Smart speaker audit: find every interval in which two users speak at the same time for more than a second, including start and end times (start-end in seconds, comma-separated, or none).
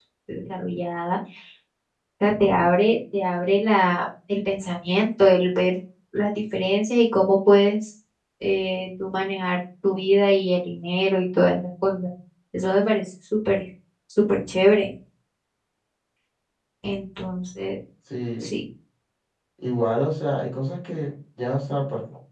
none